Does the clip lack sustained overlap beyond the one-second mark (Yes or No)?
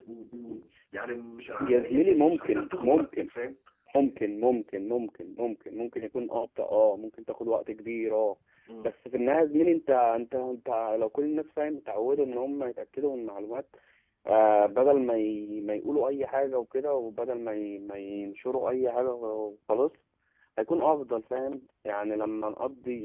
No